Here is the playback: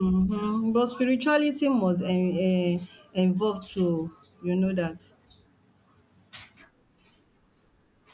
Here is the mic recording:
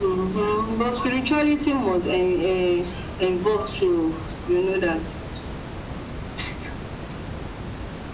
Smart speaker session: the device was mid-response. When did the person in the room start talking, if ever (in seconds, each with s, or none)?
none